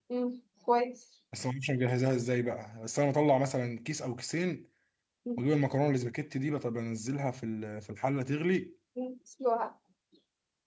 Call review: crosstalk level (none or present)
none